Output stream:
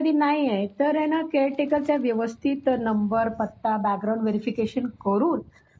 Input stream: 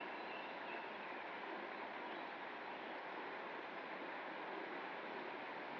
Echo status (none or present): none